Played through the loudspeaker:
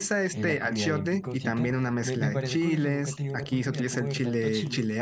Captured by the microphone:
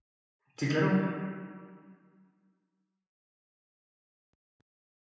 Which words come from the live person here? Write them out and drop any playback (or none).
Sí, claro.